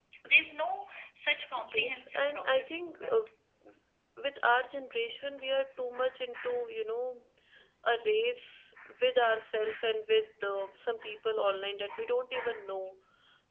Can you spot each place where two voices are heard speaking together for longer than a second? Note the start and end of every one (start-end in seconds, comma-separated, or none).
1.7-3.1